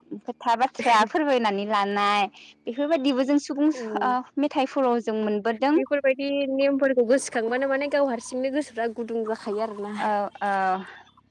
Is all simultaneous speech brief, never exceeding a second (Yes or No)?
Yes